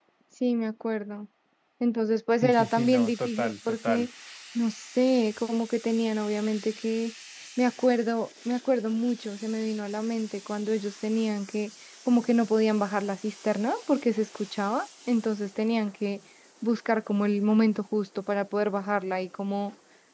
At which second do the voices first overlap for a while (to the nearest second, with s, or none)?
2 s